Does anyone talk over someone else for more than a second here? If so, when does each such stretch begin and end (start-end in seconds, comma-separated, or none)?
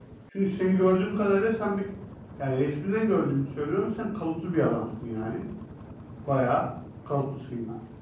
none